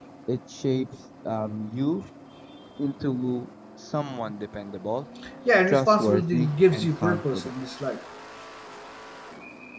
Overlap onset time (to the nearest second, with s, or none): 6 s